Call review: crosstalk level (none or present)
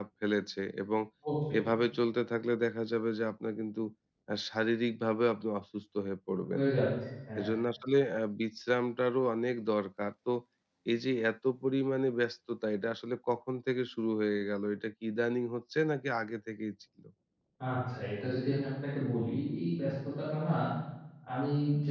none